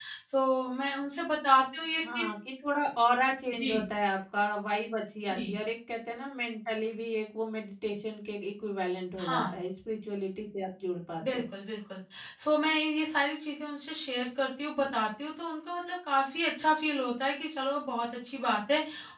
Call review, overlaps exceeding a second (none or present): none